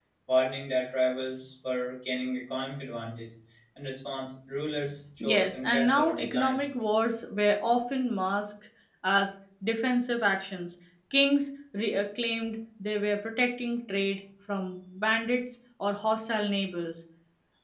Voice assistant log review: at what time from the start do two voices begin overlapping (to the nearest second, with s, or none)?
5 s